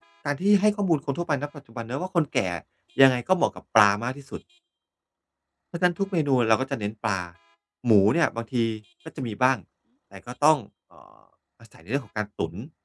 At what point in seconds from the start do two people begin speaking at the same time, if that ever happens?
none

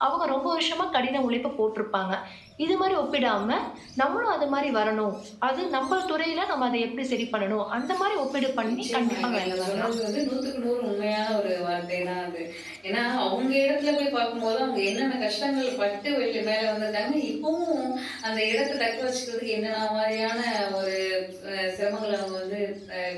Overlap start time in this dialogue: 8.6 s

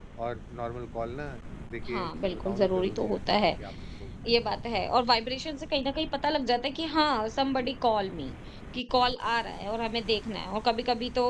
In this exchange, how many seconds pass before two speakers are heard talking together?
1.9 s

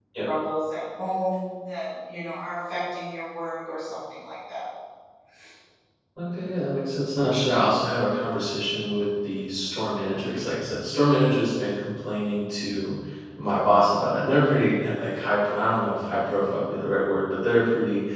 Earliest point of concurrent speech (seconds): none

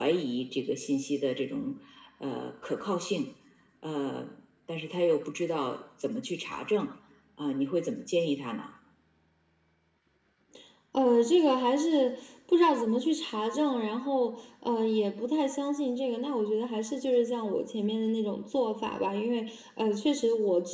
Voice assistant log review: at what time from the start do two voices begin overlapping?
none

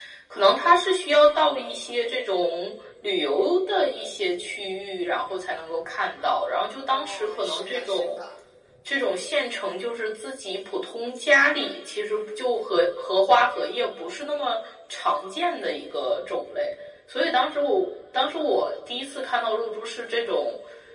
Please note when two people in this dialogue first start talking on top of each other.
6.9 s

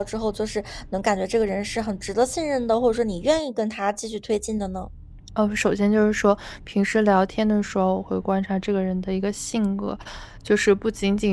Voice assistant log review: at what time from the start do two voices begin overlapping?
none

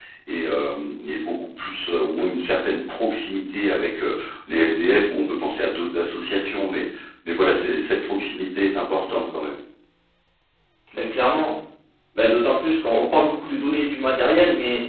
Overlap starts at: none

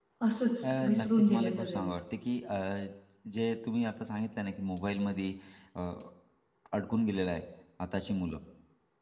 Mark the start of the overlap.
0.6 s

